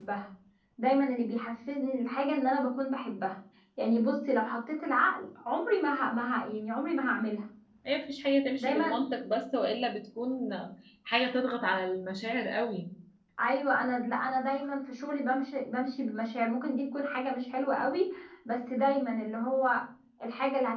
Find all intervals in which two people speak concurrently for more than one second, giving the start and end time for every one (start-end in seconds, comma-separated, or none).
none